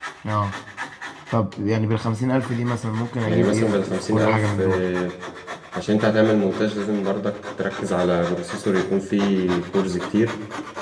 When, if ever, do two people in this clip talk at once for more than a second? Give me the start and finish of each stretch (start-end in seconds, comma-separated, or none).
3.2-4.8